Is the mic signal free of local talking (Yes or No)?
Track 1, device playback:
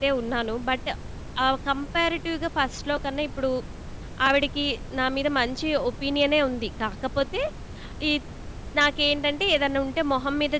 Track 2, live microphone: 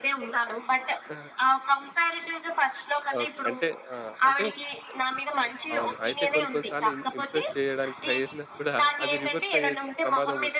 No